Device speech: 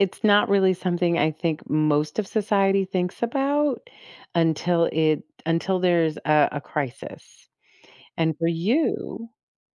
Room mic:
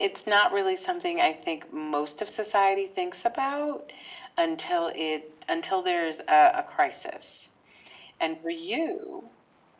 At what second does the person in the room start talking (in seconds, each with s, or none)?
none